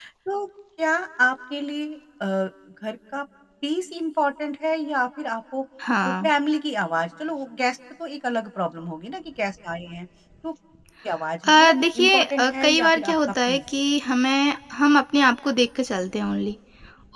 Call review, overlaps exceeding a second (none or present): present